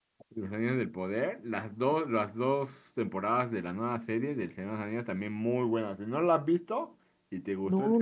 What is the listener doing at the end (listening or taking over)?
taking over